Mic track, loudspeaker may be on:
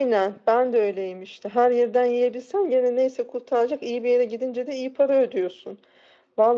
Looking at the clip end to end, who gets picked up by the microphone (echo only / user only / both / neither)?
echo only